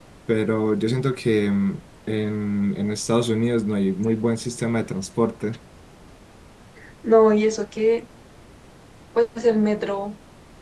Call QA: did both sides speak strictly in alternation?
Yes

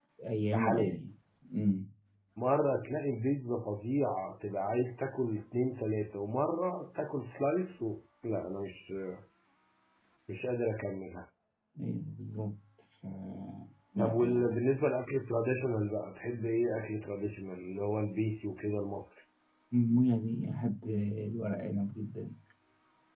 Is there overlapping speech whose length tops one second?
No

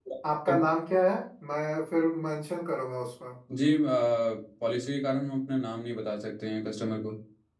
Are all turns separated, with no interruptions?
Yes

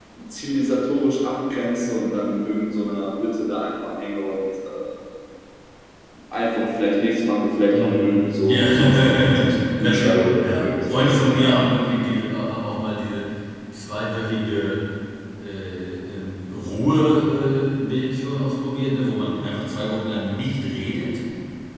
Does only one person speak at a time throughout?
No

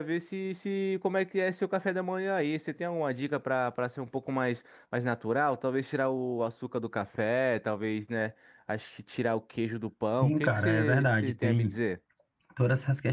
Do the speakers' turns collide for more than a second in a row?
Yes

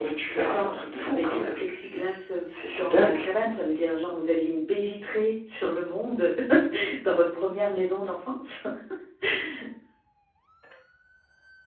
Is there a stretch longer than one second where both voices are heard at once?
Yes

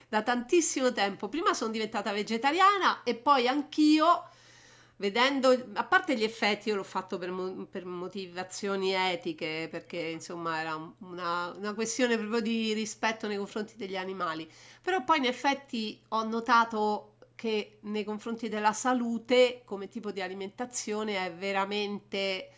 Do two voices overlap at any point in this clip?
No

